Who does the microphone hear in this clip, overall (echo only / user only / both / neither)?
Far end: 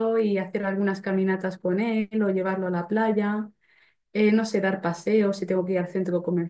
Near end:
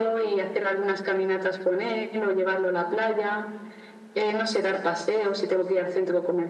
echo only